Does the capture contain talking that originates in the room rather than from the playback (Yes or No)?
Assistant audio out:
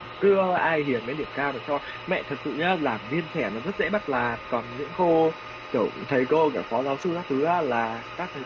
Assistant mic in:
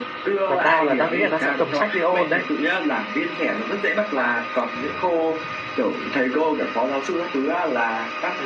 Yes